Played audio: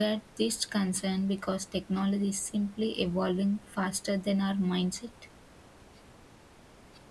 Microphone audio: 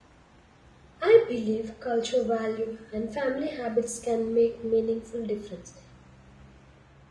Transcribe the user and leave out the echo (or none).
I believe culture value and family habits can make meaningful difference.